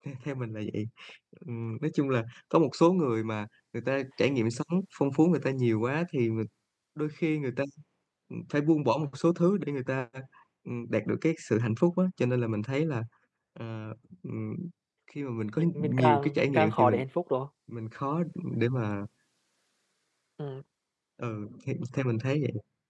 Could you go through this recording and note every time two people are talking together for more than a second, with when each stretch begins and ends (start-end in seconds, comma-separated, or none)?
15.6-17.0